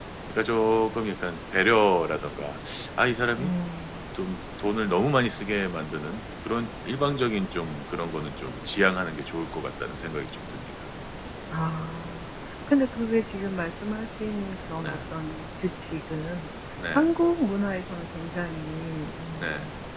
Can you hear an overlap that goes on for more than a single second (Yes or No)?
No